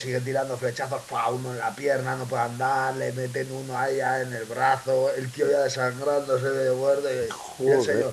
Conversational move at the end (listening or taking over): listening